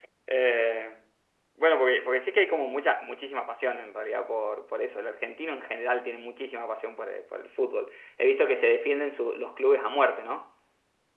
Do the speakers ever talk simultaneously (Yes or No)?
No